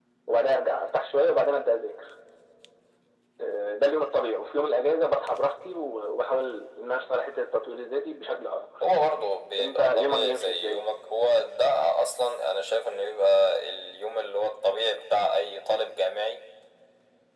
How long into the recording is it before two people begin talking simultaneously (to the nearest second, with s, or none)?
10 s